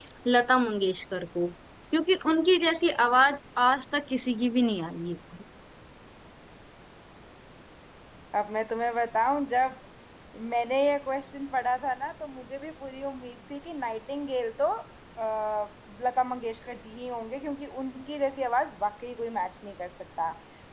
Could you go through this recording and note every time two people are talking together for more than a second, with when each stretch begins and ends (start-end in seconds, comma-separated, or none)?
none